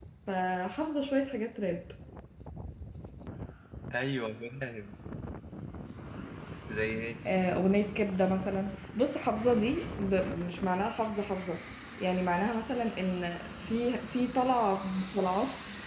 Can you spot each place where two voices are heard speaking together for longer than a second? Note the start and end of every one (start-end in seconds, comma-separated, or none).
none